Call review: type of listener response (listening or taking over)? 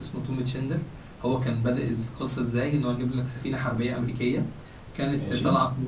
listening